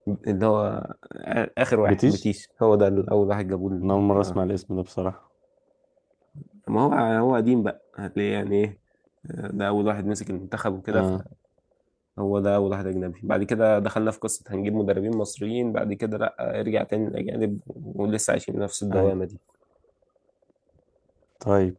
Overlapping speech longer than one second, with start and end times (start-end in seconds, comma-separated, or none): none